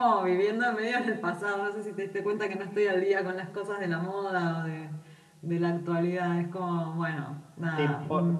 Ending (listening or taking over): taking over